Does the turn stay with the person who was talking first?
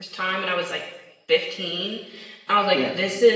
Yes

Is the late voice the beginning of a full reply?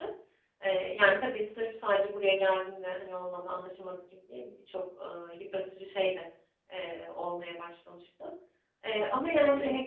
No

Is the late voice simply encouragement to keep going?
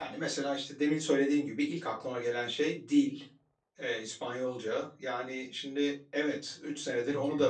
Yes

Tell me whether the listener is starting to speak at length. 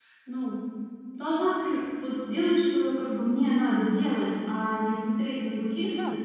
No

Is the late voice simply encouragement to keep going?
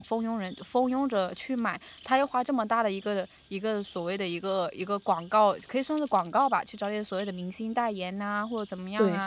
Yes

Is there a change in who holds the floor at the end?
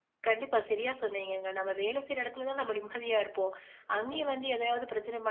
No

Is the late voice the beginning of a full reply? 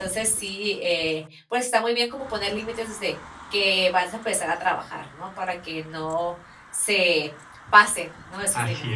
Yes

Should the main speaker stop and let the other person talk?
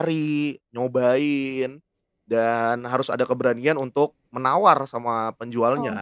Yes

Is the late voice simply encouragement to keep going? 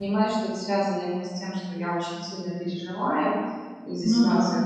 Yes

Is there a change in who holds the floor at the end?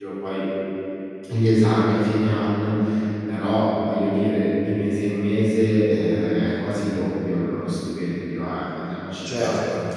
Yes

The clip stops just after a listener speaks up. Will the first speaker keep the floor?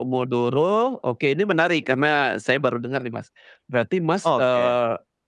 Yes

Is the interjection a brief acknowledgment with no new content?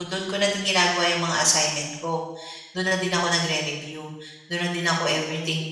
No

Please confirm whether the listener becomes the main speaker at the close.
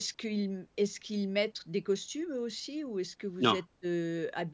No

